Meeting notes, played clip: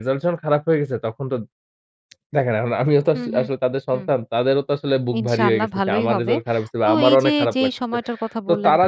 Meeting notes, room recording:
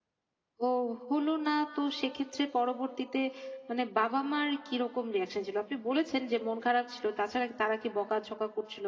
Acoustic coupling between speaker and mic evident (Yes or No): No